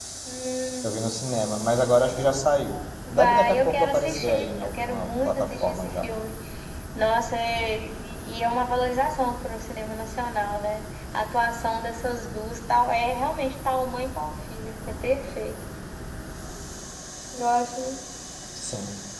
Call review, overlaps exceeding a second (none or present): present